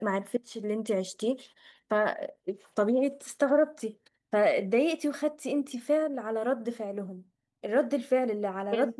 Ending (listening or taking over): listening